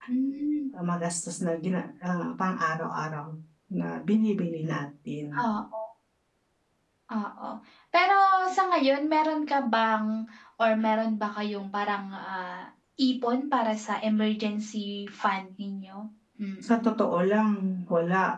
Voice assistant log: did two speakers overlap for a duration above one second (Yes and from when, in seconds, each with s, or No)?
No